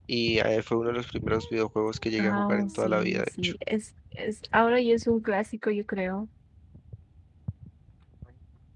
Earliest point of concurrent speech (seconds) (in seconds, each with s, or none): 2.2 s